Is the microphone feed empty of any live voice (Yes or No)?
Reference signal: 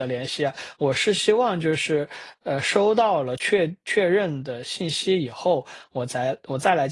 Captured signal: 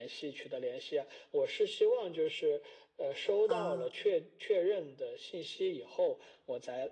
No